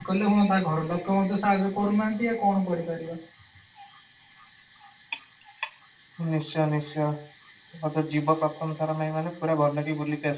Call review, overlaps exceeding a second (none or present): none